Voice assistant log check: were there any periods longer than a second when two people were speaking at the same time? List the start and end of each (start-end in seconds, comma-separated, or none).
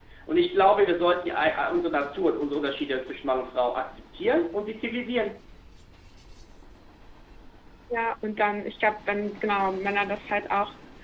none